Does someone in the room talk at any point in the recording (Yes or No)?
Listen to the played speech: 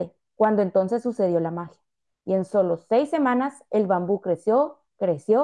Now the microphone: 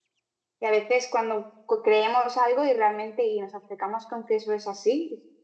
Yes